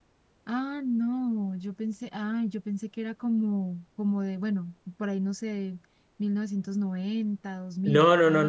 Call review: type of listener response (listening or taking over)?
taking over